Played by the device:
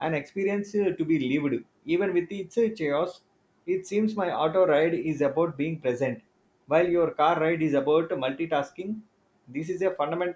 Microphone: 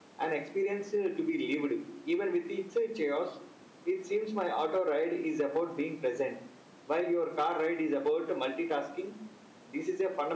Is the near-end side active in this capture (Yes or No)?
No